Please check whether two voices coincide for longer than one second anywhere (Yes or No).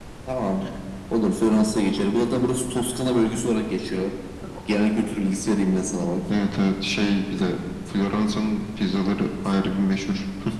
No